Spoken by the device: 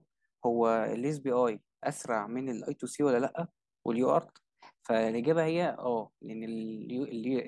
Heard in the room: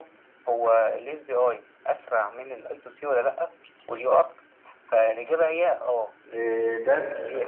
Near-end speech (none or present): present